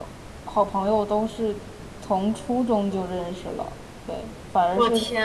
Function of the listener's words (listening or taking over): listening